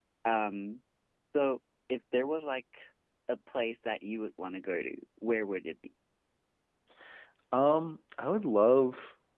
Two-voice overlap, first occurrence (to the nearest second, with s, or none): none